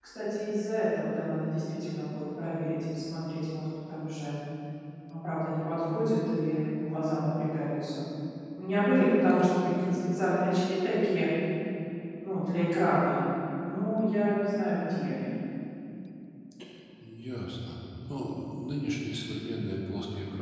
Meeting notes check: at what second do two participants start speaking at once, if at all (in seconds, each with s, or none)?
none